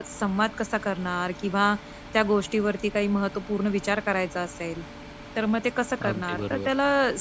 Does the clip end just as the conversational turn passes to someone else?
No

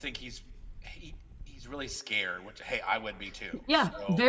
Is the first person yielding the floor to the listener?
Yes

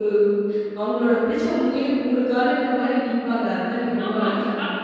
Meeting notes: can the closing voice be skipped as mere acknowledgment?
No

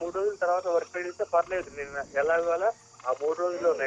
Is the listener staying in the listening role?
Yes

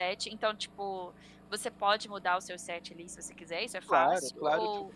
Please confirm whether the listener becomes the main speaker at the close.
Yes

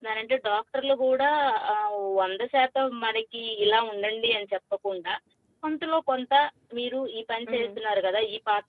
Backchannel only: Yes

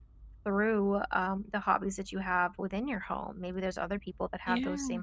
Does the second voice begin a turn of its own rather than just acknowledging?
No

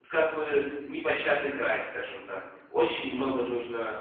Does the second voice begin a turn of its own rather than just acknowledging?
No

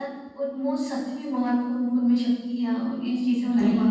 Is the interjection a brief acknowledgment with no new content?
No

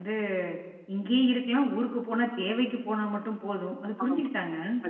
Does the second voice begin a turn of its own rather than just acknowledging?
Yes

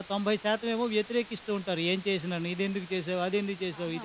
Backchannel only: No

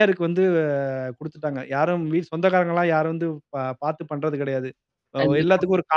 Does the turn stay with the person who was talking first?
Yes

